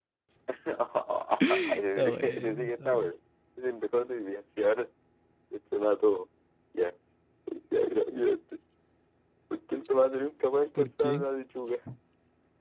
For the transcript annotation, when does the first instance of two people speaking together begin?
1.6 s

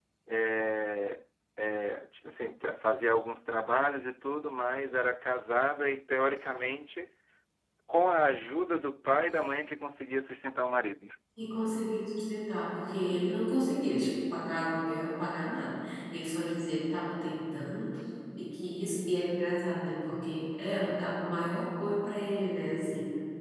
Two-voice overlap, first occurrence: none

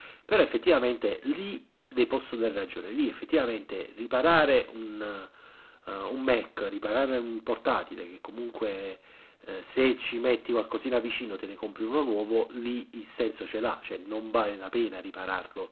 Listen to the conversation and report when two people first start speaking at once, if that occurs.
none

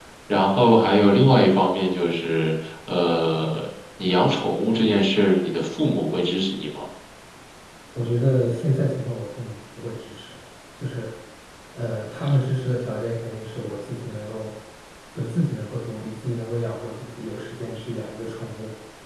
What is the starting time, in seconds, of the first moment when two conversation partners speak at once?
none

